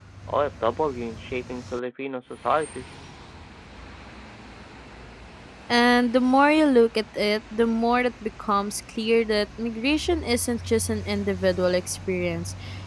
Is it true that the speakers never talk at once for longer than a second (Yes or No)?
Yes